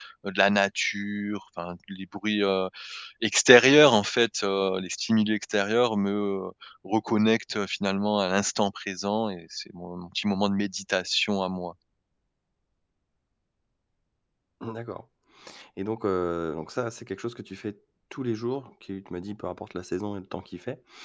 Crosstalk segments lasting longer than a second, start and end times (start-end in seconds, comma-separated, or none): none